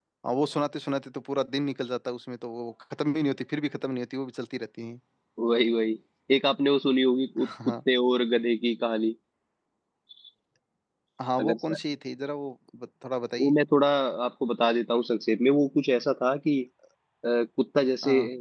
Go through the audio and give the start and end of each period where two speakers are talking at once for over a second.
none

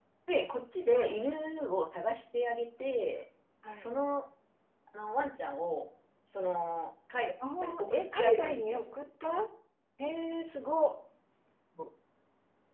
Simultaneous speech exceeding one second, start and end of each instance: 7.6-8.8

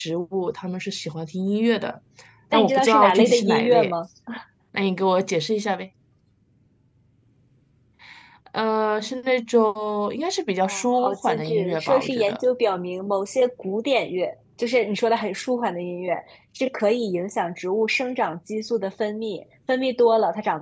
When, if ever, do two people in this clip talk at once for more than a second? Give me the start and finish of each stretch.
2.5-3.9, 10.6-12.4

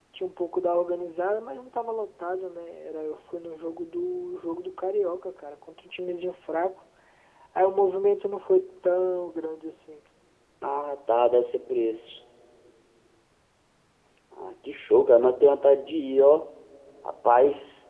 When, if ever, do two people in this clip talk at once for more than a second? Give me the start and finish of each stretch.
none

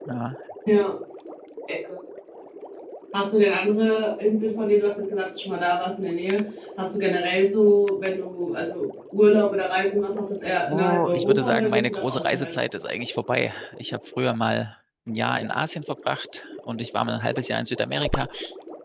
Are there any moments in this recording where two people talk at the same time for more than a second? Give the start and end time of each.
10.7-12.5

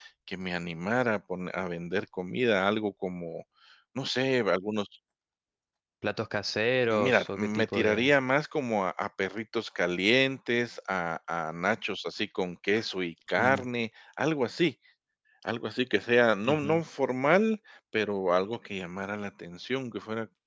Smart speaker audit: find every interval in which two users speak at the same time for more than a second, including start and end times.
6.9-8.1

